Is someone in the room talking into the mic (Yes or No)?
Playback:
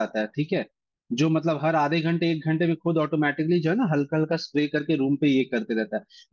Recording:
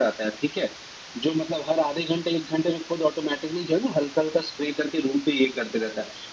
No